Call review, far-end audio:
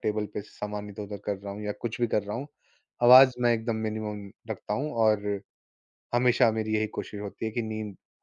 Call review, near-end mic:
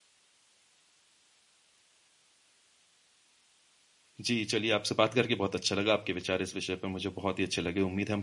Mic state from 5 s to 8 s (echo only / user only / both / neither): user only